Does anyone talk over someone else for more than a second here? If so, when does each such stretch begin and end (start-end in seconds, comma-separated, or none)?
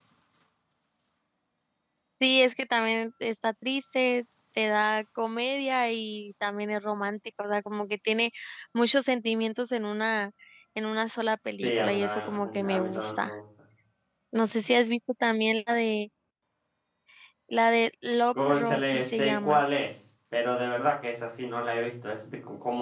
11.6-13.3, 18.3-19.6